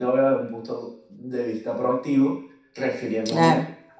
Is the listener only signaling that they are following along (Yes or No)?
Yes